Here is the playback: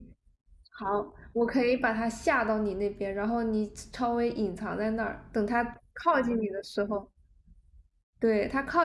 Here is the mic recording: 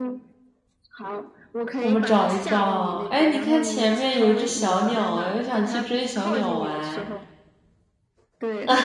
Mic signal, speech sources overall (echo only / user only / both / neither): both